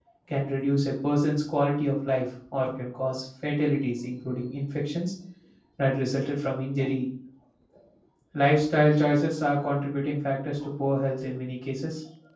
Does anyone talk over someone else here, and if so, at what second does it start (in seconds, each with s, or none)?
none